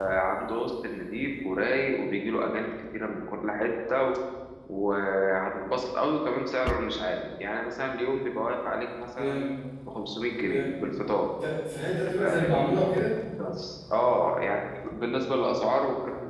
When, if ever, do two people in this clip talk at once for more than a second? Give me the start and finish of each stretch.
none

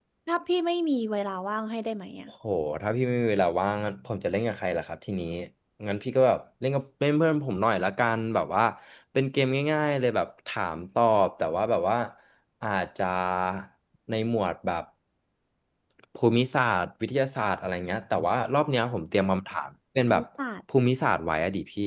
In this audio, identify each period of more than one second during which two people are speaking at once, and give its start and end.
none

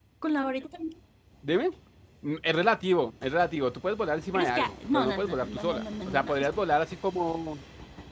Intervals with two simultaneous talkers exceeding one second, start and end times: 4.3-6.5

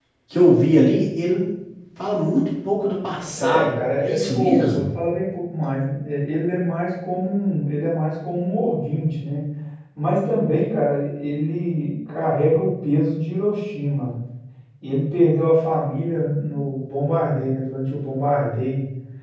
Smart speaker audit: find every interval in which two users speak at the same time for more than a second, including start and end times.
3.3-4.9

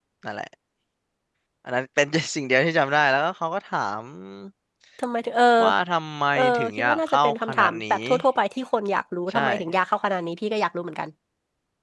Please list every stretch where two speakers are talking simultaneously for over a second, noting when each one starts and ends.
6.3-8.0

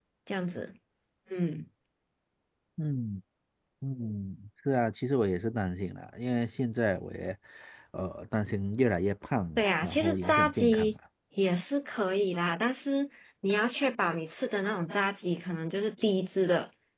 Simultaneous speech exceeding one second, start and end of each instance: 9.6-10.9

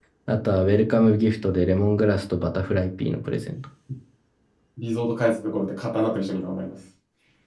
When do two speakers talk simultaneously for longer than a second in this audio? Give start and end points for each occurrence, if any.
none

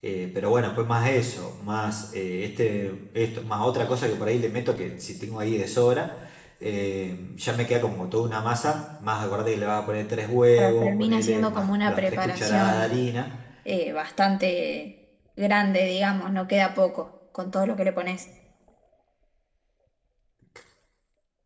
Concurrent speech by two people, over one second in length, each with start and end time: 10.6-13.0

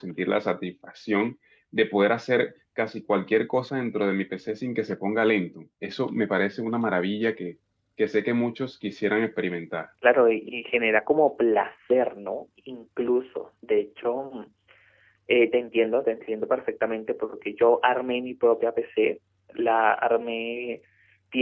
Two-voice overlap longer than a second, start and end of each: none

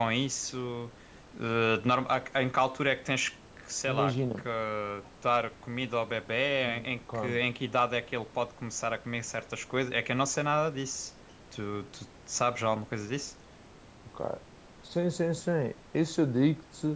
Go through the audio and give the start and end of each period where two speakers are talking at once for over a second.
none

